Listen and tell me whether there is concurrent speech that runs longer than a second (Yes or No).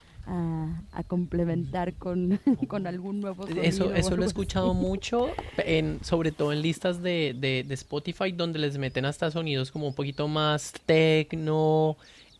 Yes